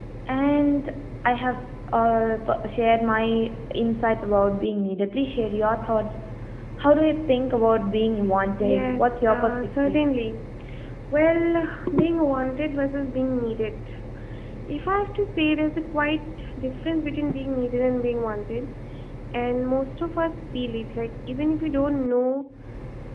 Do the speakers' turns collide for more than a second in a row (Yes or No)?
Yes